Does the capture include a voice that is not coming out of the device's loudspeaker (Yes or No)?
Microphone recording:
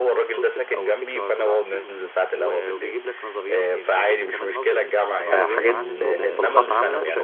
Yes